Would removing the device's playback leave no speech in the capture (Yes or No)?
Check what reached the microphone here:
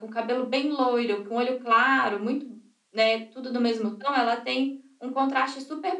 Yes